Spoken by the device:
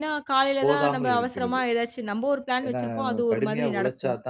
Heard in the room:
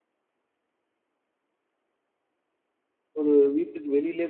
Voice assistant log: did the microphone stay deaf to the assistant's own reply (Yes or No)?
Yes